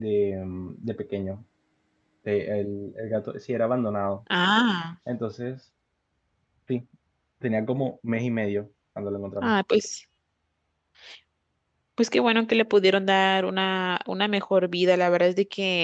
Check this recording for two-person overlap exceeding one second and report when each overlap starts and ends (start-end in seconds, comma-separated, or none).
none